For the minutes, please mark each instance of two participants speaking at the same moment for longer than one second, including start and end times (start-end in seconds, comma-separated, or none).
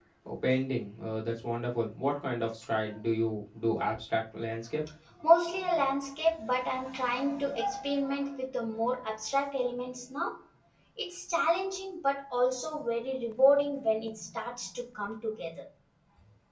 none